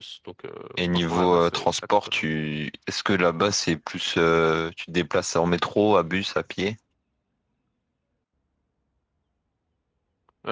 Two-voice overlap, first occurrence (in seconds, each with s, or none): 0.9 s